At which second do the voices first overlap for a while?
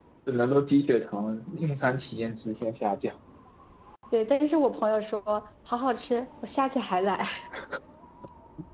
none

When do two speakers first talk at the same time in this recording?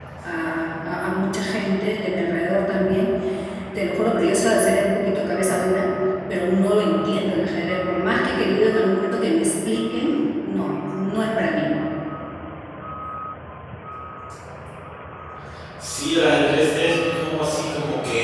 none

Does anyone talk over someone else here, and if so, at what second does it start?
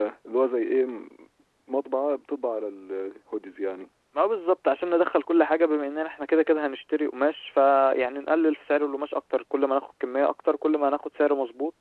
none

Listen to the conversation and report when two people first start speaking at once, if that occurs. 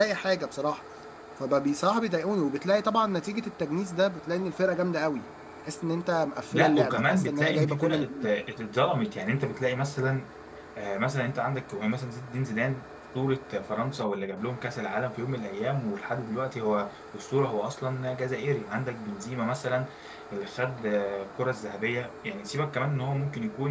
6.5 s

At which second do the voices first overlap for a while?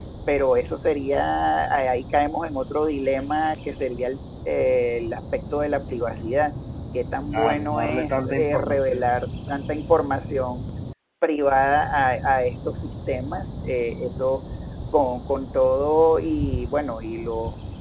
7.3 s

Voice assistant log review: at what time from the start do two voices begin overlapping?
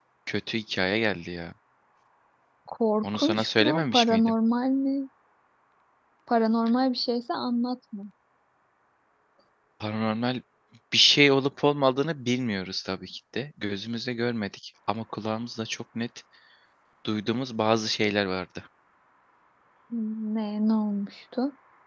3.0 s

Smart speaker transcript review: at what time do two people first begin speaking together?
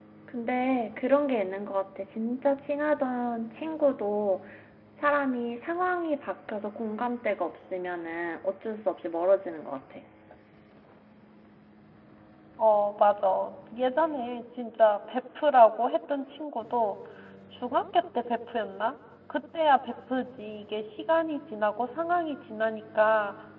none

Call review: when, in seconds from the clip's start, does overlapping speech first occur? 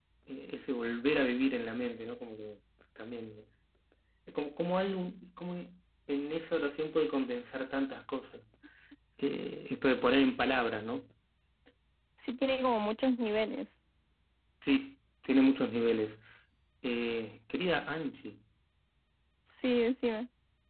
none

